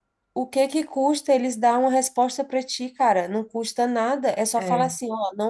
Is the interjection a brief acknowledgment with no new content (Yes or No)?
Yes